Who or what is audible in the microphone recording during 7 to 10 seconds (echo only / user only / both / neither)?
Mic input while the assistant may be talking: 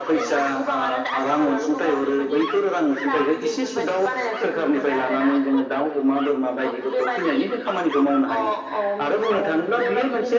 echo only